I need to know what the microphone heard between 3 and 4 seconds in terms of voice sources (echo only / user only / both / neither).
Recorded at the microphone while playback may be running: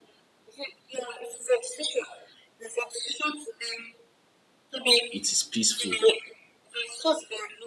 echo only